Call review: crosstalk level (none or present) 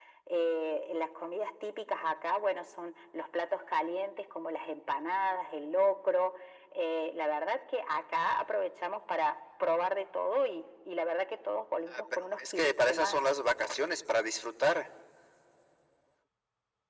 present